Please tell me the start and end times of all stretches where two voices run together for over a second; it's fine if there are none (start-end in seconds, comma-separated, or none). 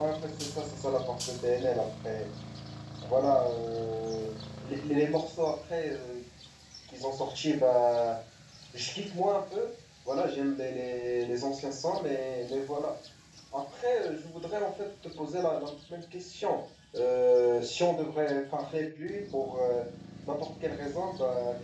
none